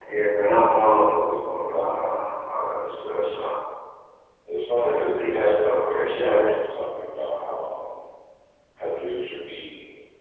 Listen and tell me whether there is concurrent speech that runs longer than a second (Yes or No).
Yes